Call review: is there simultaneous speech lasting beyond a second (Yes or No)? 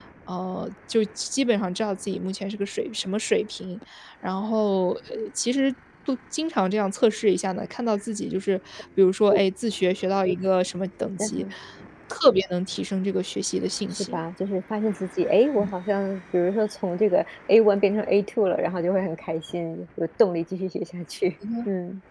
No